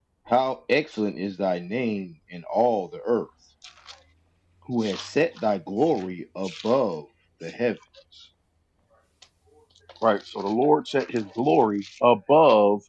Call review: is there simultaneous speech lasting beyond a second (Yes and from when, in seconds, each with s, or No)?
No